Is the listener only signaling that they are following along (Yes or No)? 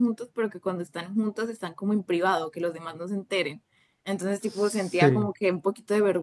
Yes